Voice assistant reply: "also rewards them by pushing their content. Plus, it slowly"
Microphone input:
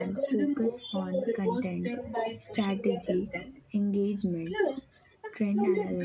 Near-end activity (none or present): present